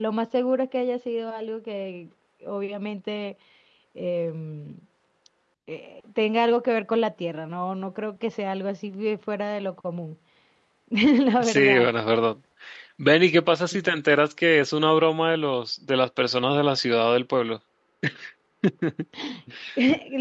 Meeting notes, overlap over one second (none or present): none